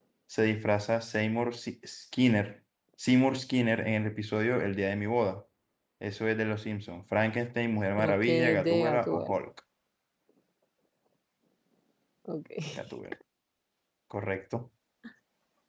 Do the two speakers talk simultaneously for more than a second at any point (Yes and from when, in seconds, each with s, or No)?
Yes, from 8.0 s